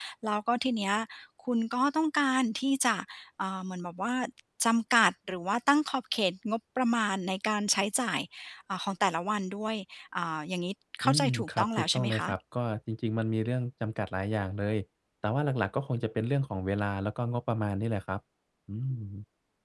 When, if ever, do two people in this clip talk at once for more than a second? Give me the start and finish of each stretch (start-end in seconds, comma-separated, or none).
11.0-12.3